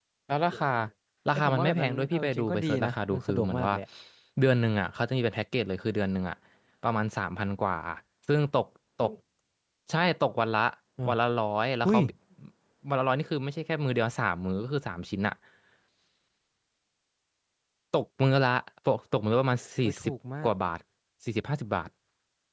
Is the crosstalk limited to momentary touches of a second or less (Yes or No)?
No